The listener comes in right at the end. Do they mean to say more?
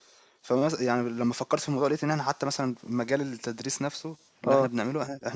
No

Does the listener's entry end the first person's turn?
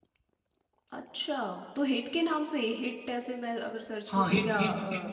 Yes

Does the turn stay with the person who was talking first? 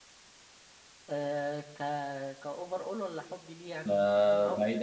No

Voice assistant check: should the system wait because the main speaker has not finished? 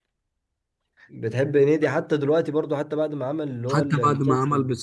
No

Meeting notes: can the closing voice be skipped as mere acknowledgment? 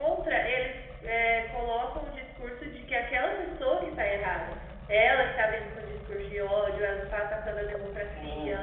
Yes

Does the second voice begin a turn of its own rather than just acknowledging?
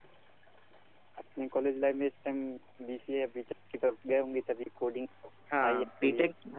Yes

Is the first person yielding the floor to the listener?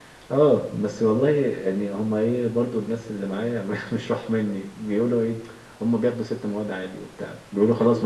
No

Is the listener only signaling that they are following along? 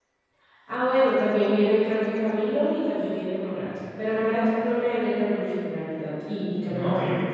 No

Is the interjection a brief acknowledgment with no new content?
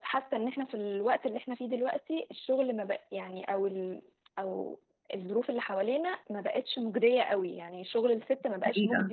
Yes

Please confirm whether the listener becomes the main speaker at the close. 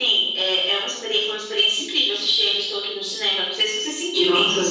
Yes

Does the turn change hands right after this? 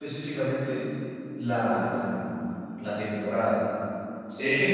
No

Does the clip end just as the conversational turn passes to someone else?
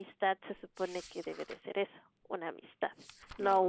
No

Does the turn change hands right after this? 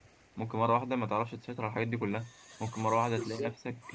No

